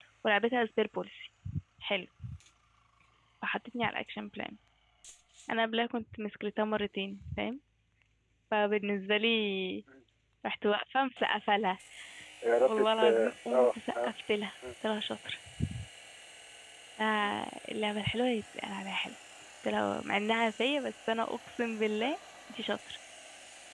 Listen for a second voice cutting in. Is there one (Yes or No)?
Yes